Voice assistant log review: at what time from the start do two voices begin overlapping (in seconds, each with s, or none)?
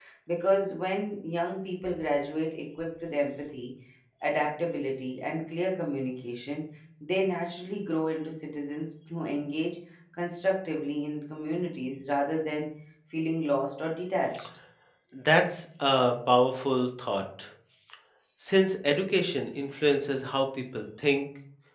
none